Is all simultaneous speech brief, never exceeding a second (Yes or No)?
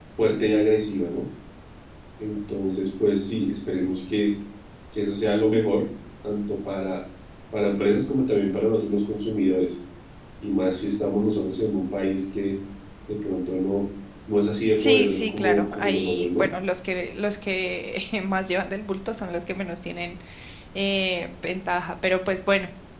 No